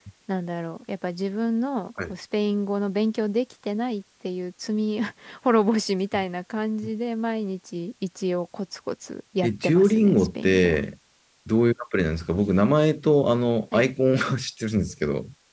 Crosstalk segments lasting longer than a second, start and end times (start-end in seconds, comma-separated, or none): 9.4-10.8